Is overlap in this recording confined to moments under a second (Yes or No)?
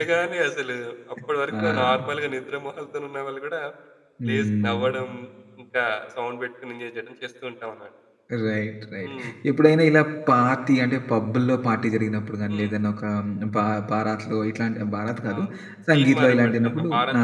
No